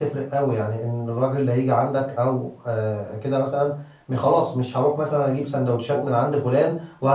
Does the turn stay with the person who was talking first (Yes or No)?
Yes